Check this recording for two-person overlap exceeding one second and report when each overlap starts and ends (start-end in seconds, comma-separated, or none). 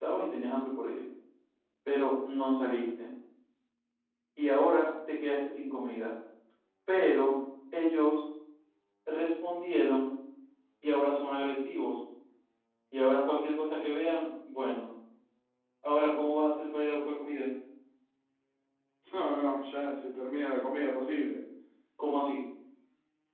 none